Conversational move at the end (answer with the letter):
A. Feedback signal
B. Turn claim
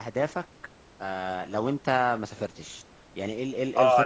B